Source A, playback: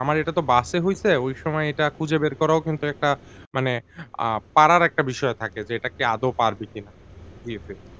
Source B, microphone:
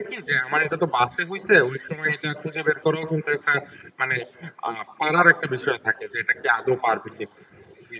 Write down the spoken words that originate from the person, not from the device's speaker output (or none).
none